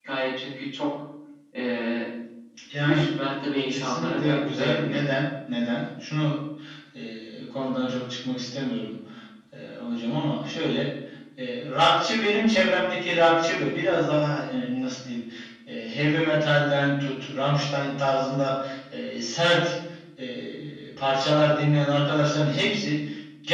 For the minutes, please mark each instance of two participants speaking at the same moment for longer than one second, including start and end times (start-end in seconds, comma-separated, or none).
3.7-5.0